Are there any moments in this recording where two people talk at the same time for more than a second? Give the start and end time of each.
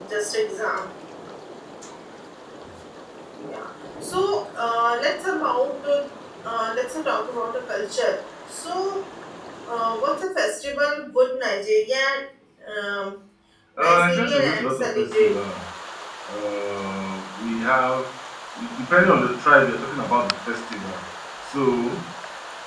13.8-15.3

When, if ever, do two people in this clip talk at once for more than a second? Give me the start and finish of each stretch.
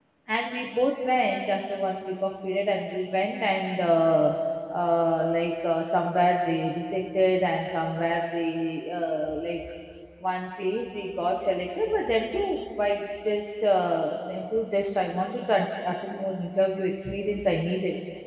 none

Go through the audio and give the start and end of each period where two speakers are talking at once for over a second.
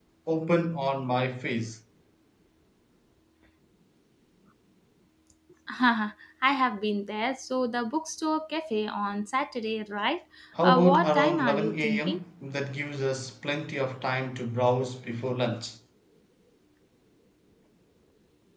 10.6-12.2

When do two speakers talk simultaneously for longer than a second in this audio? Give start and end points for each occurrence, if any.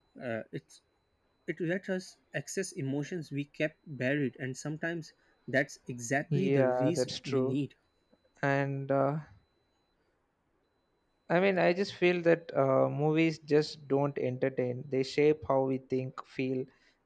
6.3-7.5

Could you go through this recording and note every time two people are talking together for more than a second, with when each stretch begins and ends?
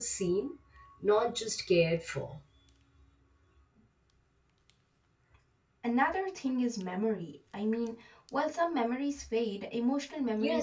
none

